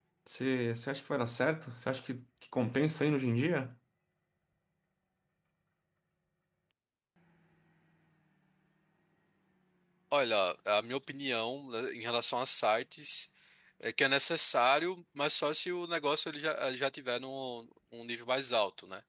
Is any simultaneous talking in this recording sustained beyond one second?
No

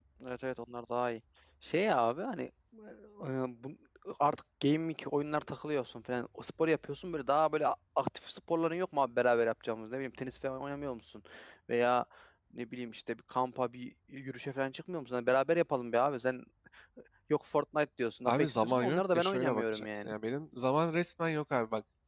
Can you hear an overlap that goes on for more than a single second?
Yes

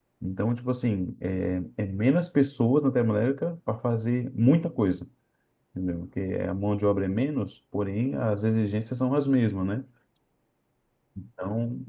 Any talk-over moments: No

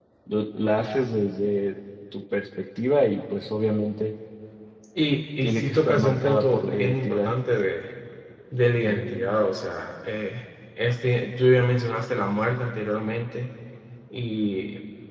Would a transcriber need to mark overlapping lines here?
Yes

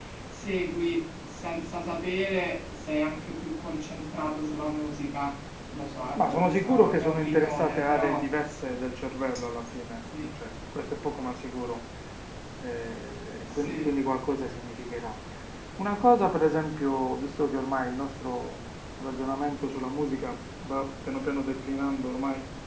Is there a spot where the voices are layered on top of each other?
Yes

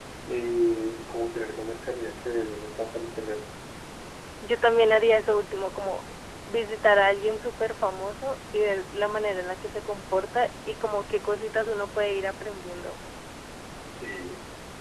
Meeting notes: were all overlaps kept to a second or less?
Yes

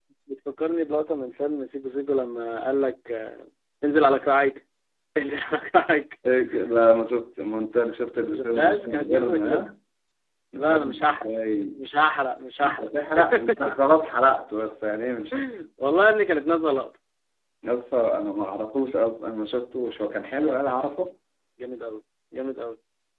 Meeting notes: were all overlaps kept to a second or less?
No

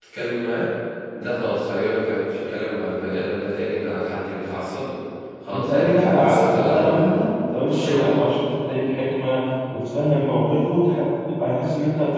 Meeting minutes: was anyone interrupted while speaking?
Yes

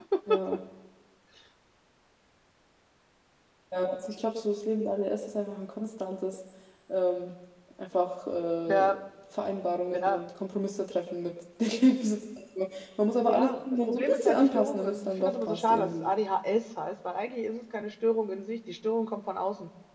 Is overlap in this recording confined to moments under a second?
No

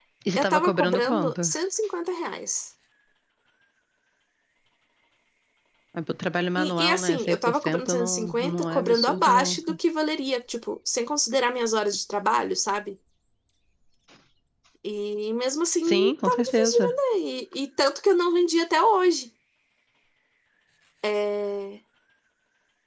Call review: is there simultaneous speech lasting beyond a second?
Yes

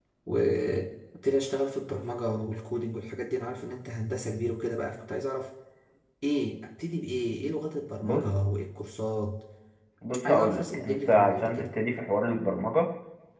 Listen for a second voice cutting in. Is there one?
Yes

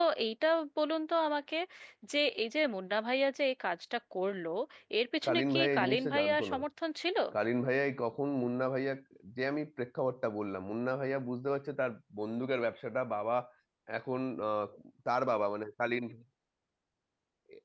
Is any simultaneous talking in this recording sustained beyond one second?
Yes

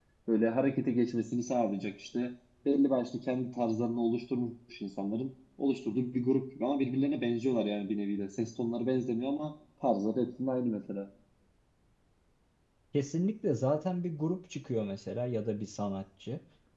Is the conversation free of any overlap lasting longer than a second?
Yes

